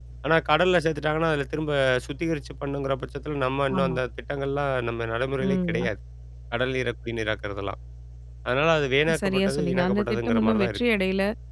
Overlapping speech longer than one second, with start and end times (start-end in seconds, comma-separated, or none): 9.2-10.8